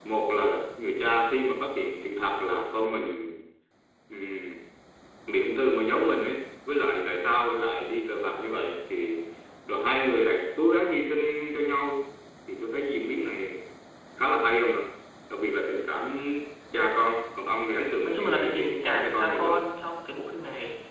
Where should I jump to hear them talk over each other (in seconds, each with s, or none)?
18.0 s